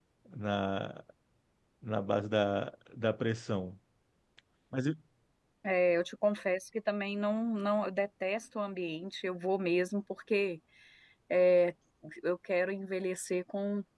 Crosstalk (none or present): none